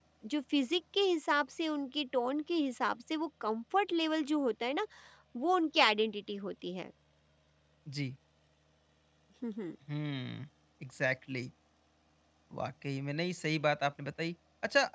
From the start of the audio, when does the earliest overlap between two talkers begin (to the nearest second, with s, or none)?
none